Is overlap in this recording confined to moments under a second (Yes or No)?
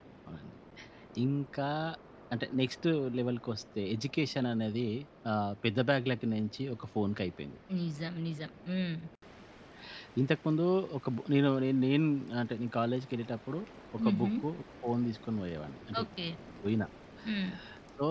Yes